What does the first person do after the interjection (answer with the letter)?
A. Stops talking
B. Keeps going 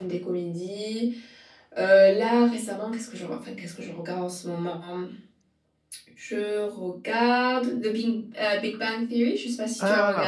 A